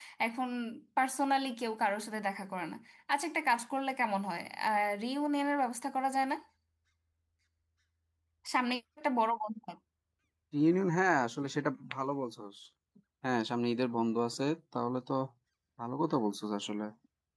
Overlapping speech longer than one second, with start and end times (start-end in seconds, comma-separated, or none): none